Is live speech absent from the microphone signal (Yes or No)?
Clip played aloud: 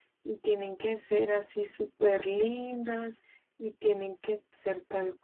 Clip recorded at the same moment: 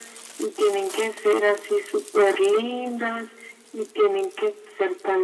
Yes